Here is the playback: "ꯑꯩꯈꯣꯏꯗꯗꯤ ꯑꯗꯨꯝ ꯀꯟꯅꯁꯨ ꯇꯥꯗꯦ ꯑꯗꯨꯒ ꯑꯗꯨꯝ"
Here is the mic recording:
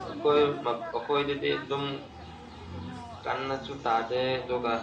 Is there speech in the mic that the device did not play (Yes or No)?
Yes